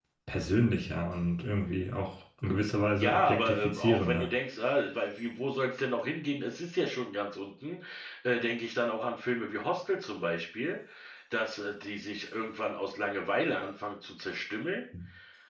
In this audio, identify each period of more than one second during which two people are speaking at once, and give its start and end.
2.9-4.3

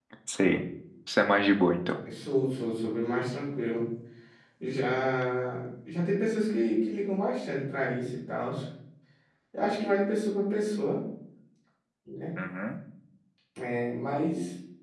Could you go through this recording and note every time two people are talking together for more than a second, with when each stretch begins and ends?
none

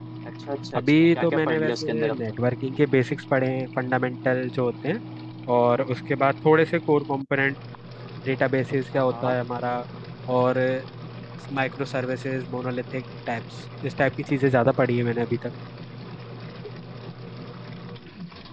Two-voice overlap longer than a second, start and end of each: 0.8-2.2

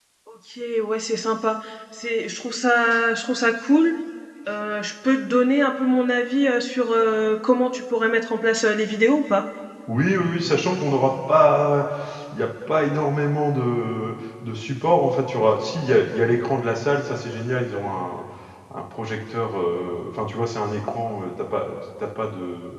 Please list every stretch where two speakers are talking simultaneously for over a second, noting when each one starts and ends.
none

